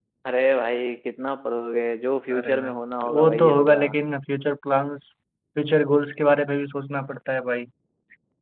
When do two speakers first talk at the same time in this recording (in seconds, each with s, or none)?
2.3 s